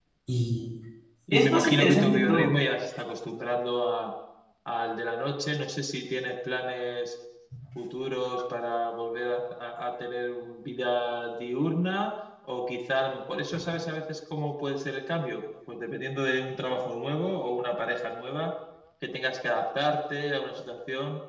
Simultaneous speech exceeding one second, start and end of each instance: 1.3-2.5

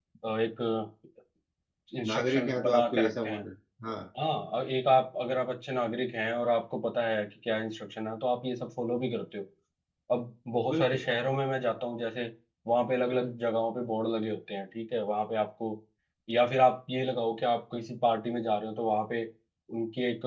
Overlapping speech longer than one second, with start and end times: 2.1-3.4

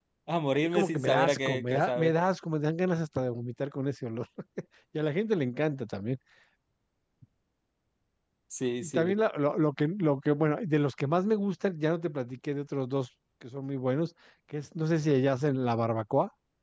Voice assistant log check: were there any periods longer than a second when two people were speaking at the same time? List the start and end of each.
0.5-2.1

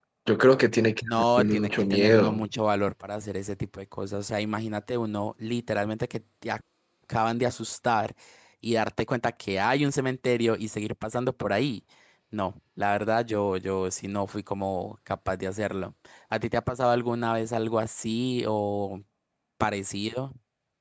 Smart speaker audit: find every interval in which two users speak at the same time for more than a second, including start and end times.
1.1-2.5

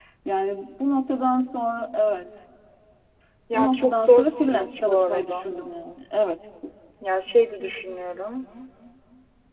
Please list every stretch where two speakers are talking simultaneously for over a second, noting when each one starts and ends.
3.5-5.5

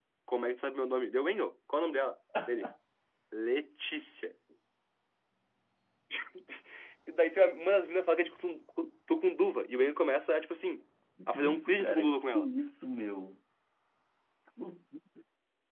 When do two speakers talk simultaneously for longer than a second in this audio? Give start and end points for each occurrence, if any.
11.3-12.5

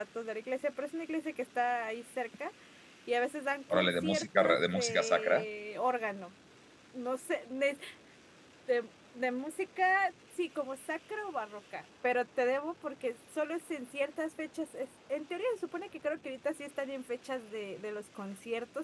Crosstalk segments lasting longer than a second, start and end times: 3.7-5.5

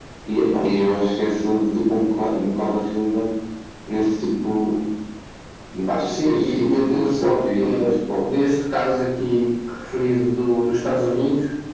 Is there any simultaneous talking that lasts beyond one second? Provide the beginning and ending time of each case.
5.9-8.3

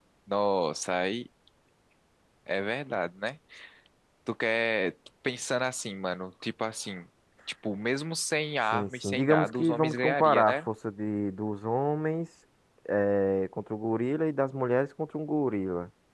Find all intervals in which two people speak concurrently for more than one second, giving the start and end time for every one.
8.7-10.6

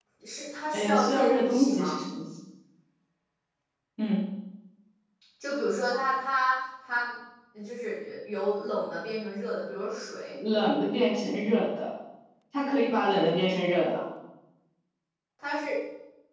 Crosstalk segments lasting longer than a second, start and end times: 0.7-2.0

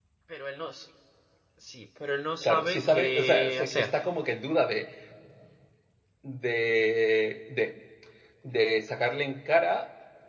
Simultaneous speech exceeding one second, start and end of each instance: 2.4-3.9

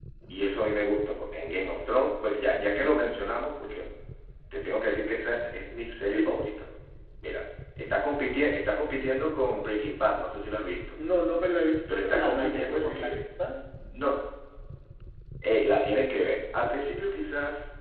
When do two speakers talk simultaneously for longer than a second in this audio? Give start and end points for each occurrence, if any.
11.9-13.2

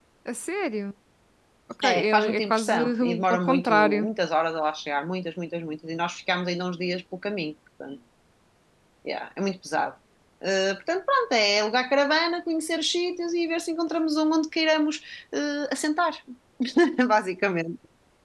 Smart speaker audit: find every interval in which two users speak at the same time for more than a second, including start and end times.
1.8-4.1

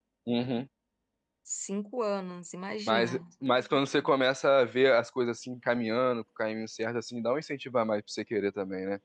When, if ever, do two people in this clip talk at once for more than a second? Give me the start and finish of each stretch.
none

